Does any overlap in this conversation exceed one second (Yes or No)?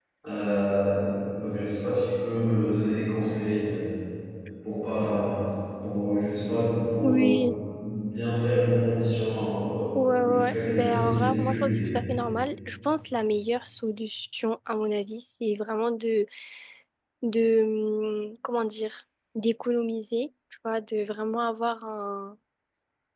Yes